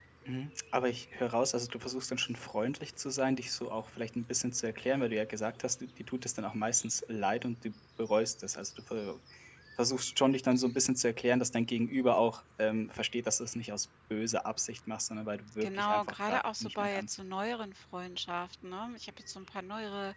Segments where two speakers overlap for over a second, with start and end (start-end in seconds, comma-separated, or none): 15.6-17.2